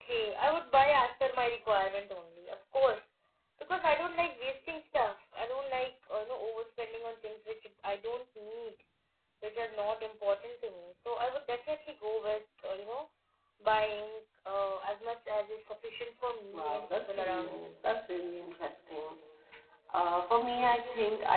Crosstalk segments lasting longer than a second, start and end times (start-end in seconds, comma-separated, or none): 16.5-17.8